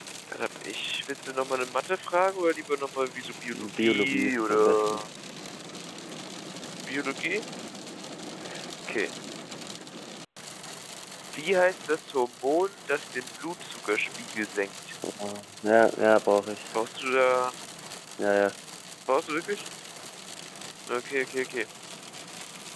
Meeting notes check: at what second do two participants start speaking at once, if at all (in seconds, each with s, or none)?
3.8 s